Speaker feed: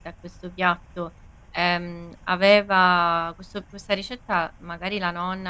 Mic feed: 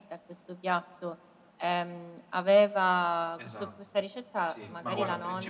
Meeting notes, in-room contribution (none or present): present